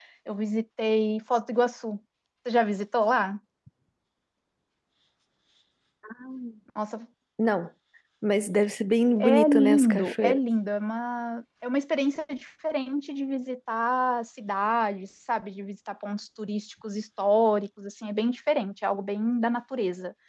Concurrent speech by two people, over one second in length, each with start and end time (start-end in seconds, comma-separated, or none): 9.2-10.4